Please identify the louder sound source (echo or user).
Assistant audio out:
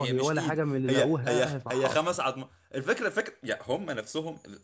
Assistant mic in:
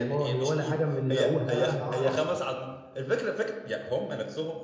echo